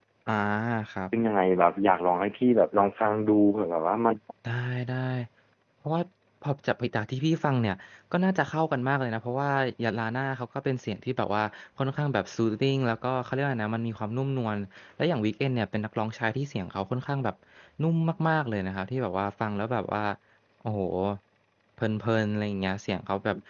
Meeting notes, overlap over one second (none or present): none